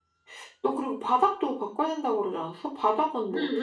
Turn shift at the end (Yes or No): Yes